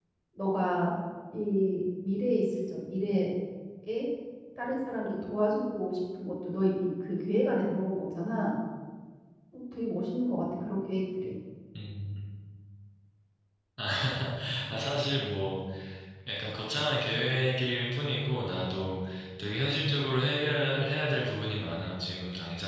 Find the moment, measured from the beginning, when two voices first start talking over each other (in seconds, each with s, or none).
none